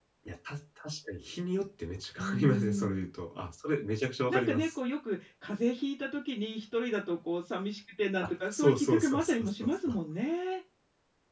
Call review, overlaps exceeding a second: present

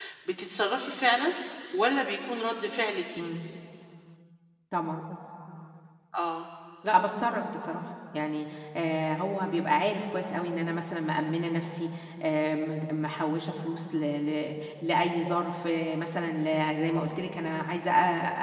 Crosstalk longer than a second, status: none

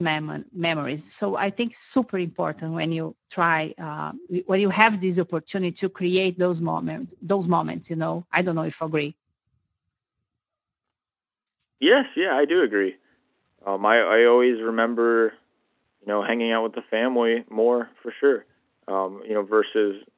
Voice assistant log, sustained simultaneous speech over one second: none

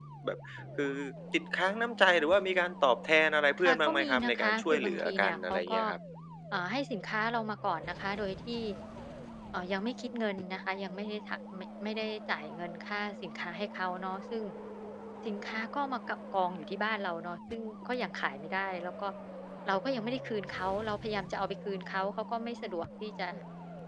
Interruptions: present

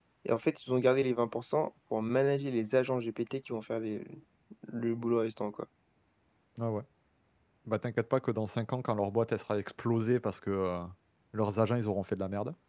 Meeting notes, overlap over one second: none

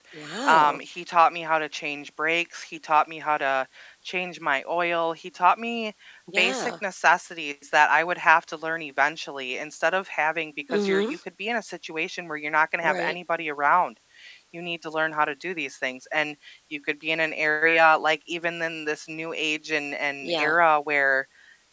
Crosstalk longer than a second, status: none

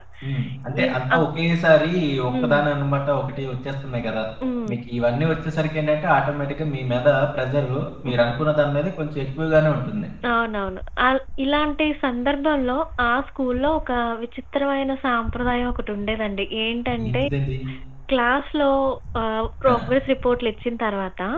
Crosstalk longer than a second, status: none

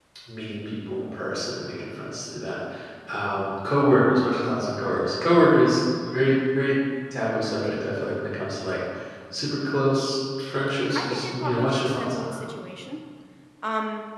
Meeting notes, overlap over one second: present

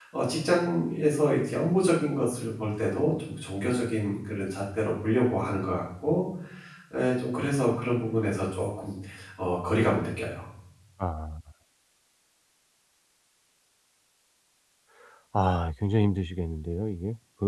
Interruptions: none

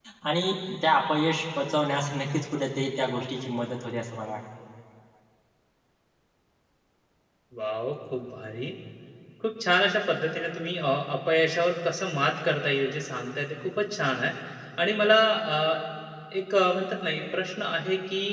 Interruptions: none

